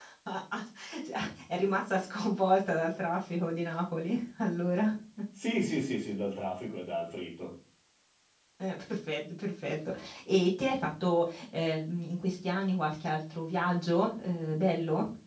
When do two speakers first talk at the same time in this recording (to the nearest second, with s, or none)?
none